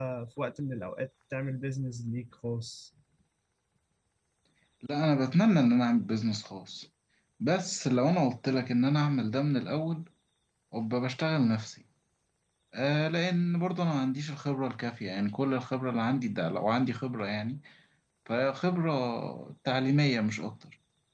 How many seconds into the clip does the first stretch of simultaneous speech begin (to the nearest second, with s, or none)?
none